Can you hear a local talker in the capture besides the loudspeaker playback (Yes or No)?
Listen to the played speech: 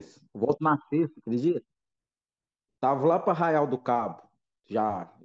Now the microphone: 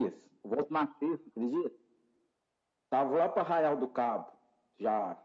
No